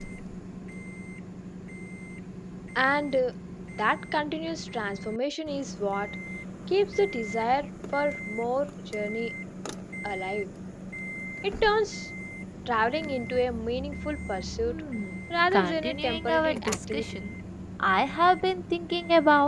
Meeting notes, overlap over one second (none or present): present